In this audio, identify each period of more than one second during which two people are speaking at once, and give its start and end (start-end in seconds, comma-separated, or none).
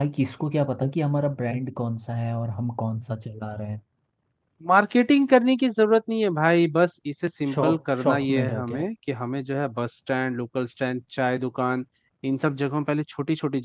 7.5-8.8